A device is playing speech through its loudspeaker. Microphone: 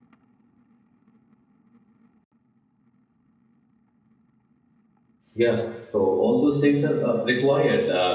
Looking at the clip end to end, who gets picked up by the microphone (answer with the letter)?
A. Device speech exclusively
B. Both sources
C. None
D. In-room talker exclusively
D